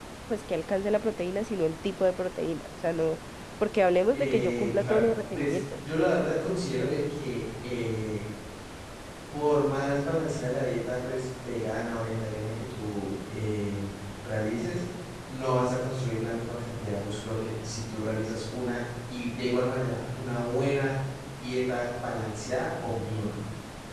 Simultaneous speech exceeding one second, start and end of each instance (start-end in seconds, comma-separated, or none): 4.1-5.8